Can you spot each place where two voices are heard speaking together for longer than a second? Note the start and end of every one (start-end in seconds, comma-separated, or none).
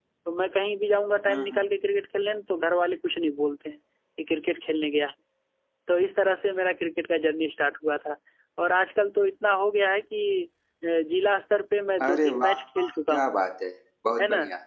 12.0-13.3